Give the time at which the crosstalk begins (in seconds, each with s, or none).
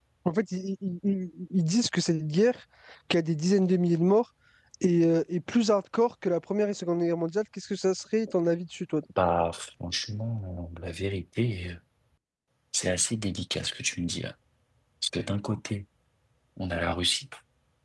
none